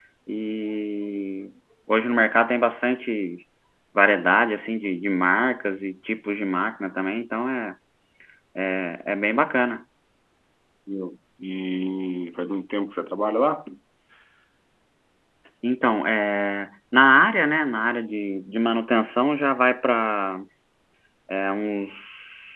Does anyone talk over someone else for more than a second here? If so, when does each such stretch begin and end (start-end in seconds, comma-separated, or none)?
none